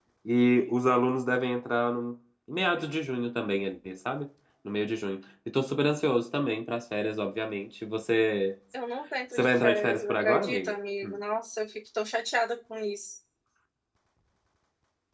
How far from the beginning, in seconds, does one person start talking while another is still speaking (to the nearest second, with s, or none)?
9 s